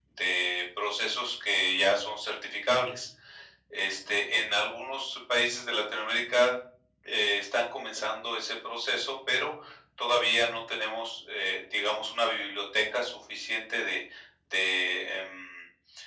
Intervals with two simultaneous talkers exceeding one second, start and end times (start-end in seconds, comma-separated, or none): none